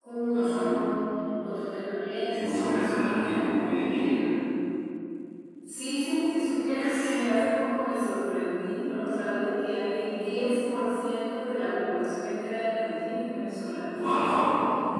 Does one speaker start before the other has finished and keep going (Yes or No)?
Yes